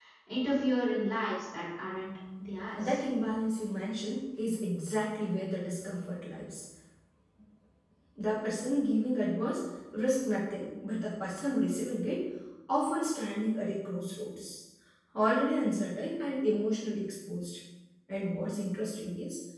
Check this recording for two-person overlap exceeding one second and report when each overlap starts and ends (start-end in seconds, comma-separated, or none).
none